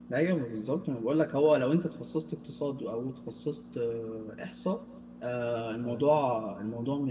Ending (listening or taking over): listening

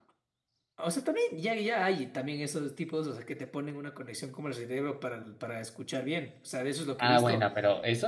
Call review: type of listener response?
taking over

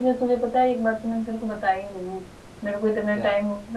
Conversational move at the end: listening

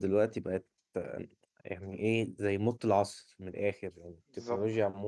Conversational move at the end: listening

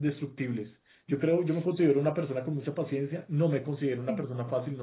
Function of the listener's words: listening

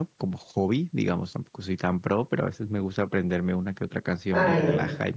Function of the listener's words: taking over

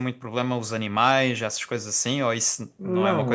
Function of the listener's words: taking over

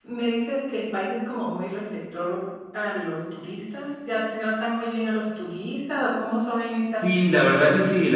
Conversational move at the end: taking over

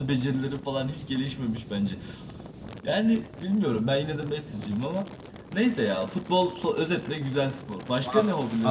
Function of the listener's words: taking over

